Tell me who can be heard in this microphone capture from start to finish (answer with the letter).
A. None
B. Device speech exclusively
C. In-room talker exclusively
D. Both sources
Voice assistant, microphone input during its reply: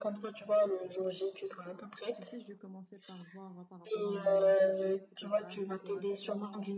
D